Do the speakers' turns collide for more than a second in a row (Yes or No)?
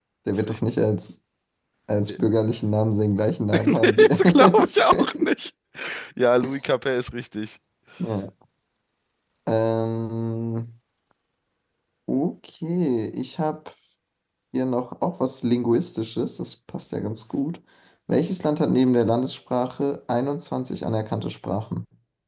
Yes